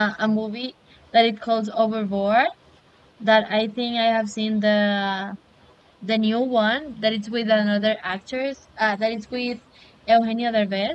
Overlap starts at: none

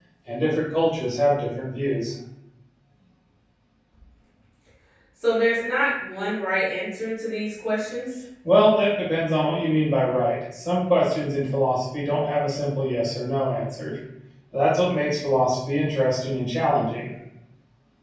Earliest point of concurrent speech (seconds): none

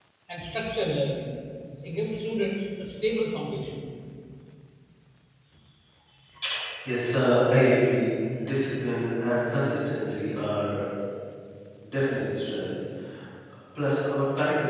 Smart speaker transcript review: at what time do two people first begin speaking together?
none

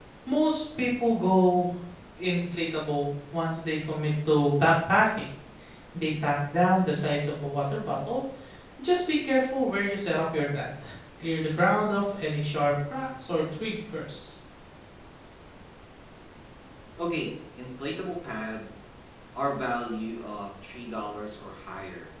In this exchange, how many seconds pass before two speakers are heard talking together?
none

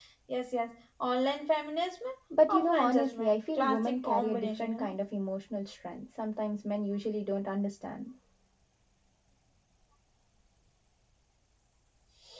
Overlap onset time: 2.5 s

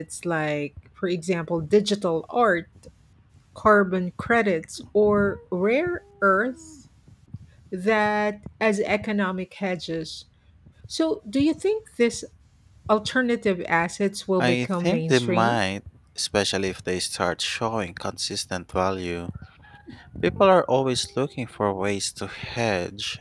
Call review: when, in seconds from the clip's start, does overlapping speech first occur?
14.4 s

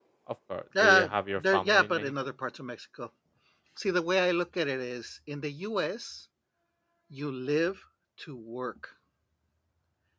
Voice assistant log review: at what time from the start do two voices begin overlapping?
0.8 s

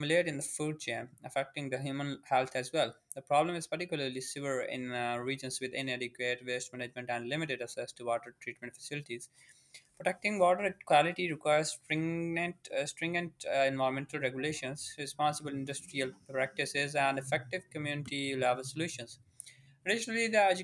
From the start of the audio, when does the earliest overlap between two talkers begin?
none

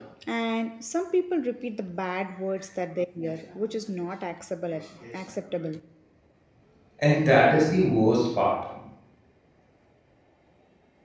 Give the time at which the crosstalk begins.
none

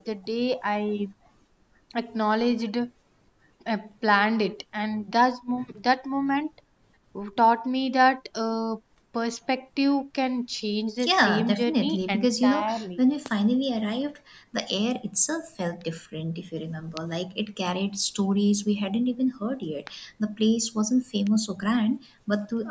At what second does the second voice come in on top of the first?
11.0 s

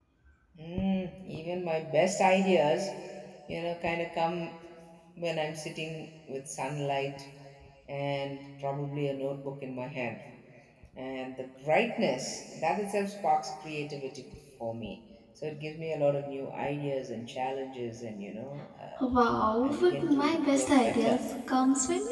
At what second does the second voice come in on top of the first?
19.6 s

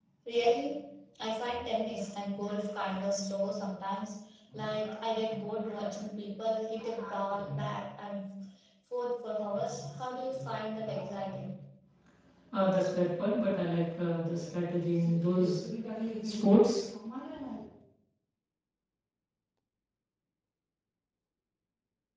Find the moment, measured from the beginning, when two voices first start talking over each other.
none

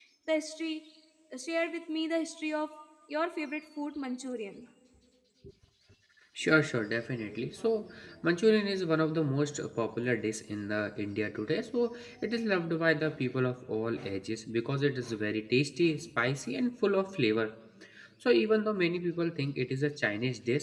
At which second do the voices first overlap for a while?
none

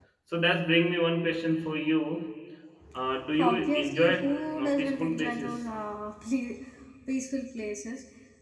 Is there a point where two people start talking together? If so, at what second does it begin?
3.4 s

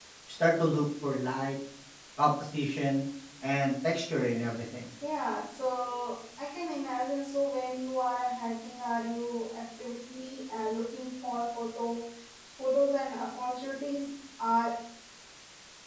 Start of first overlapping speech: none

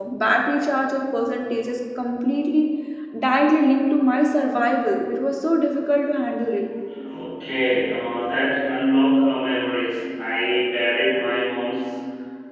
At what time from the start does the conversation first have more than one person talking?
none

